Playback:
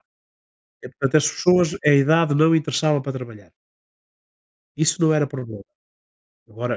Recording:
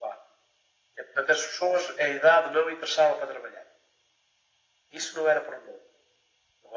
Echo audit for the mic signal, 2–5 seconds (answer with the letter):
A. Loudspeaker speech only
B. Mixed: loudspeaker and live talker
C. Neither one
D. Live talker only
A